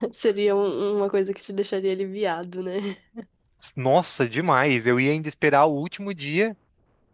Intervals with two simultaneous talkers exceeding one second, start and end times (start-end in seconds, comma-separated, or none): none